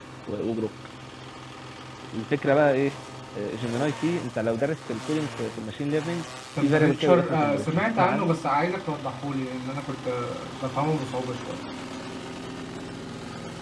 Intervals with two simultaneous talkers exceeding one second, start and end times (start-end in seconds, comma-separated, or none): 6.6-8.3